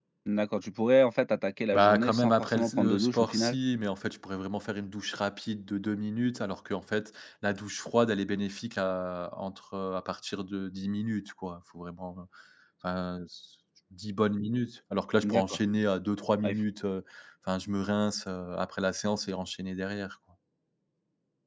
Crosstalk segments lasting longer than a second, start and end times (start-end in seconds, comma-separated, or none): 1.7-3.6